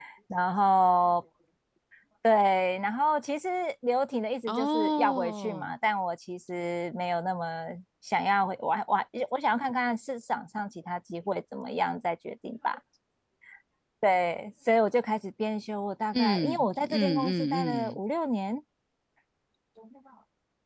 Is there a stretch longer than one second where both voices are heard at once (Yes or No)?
Yes